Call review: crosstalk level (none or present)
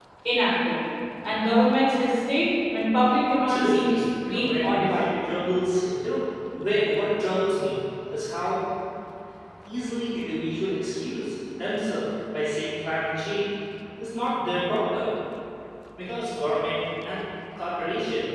present